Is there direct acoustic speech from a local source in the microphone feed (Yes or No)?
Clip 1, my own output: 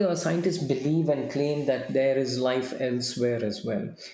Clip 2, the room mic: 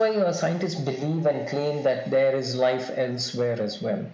No